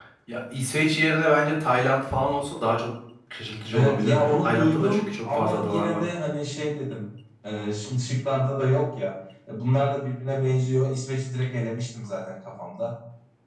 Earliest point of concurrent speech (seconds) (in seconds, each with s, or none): 3.7 s